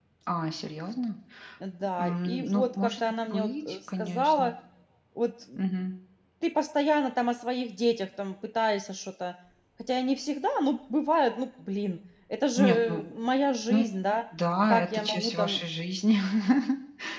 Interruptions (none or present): present